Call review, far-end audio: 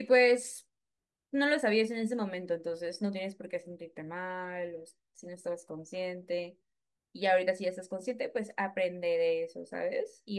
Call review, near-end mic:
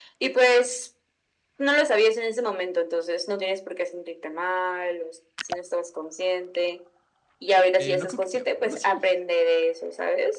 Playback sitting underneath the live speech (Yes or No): No